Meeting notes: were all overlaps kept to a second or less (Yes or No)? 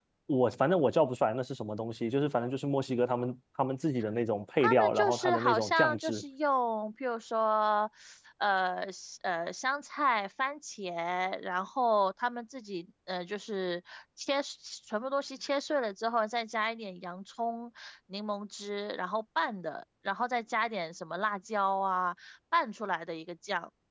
No